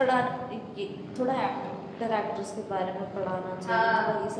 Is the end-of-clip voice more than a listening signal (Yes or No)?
No